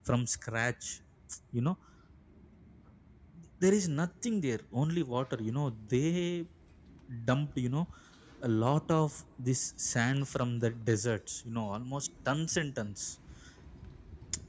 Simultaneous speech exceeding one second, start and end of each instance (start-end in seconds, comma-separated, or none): none